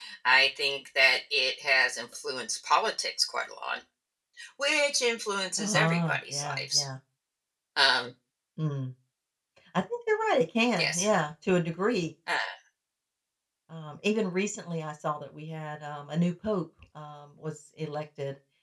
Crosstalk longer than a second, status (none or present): present